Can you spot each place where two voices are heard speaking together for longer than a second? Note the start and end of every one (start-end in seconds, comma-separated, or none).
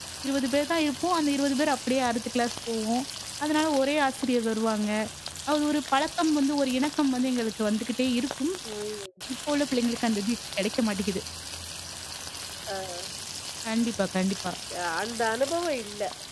none